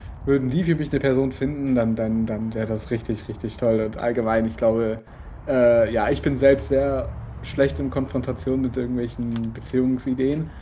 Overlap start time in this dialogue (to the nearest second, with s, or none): none